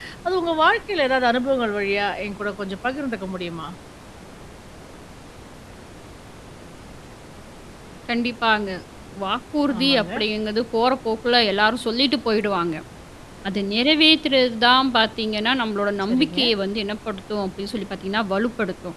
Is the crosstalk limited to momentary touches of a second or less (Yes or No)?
Yes